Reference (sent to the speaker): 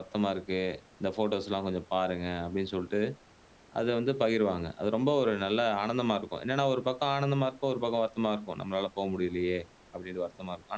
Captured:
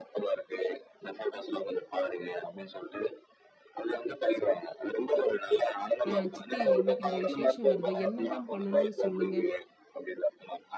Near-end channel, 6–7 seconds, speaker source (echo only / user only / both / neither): both